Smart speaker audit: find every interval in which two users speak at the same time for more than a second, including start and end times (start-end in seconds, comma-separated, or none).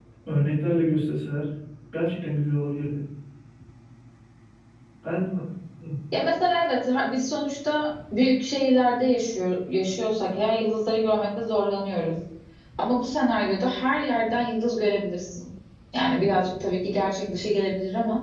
none